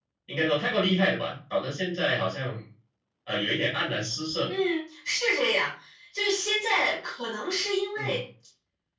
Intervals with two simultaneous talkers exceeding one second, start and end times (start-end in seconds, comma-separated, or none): none